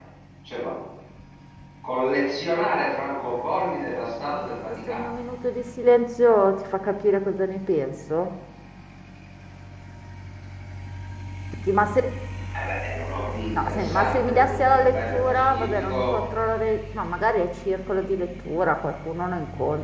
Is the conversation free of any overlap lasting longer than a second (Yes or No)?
No